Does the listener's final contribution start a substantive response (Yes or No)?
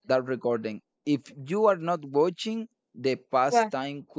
No